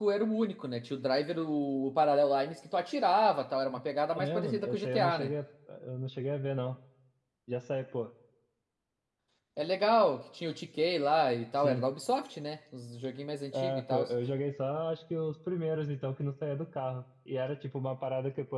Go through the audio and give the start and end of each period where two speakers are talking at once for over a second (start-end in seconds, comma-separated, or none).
4.1-5.3